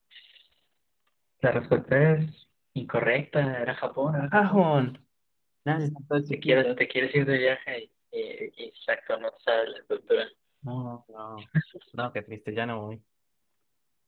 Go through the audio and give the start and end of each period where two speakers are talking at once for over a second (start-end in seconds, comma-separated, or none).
none